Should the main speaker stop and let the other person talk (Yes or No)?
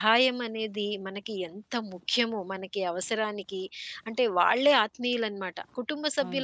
No